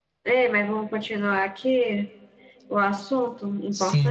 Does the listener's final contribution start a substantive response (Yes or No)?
Yes